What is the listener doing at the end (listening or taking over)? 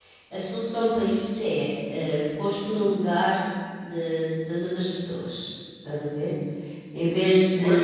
taking over